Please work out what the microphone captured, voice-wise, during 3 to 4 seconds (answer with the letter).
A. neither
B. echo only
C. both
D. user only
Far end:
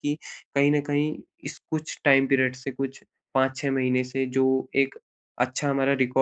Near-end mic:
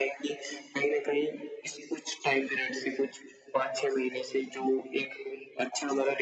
B